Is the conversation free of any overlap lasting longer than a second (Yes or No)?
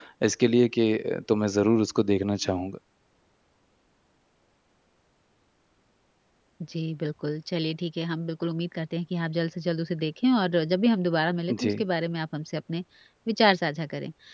Yes